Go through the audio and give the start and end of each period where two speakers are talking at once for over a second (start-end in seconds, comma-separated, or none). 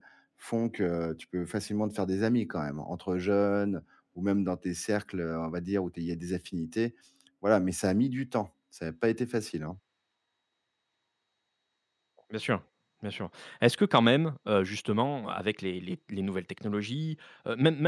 none